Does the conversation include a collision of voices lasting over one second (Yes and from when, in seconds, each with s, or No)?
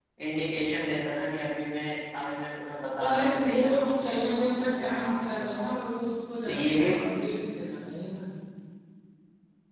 Yes, from 3.0 s